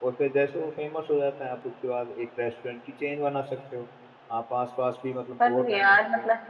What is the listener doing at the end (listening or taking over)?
taking over